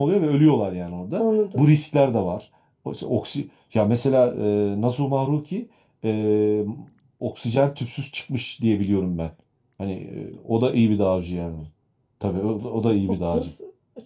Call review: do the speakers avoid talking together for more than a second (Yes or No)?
Yes